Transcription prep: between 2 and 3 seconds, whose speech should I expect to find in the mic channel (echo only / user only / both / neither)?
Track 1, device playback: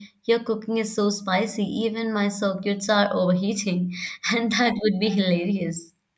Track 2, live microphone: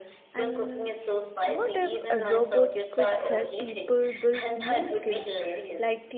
both